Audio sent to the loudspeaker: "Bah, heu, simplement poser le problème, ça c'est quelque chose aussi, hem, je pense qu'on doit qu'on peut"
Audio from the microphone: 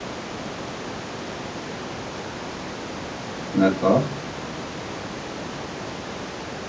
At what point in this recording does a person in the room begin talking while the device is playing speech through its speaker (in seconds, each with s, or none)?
3.5 s